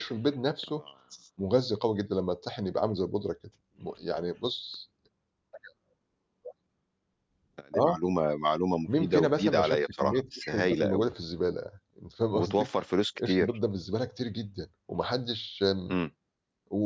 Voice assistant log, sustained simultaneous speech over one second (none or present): present